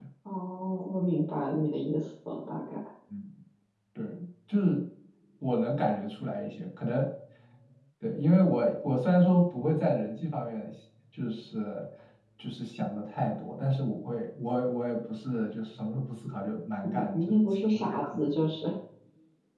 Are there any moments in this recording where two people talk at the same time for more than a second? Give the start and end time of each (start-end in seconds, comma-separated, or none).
16.8-18.3